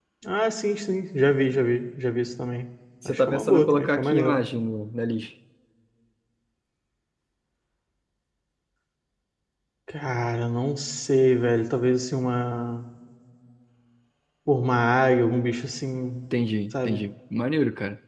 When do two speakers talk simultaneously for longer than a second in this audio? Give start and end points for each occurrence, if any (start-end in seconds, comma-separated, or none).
3.0-4.4